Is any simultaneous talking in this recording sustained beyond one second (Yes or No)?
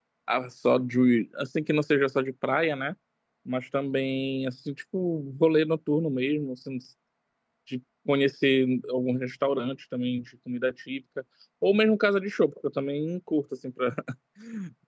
No